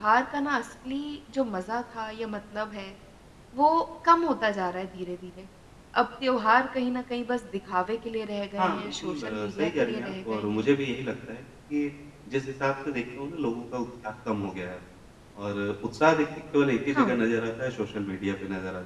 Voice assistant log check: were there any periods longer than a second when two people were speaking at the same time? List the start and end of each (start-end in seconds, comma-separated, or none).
8.6-10.7